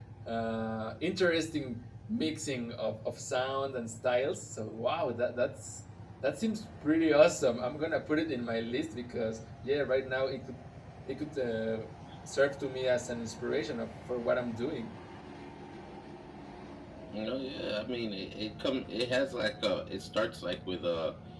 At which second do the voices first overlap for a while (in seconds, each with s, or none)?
none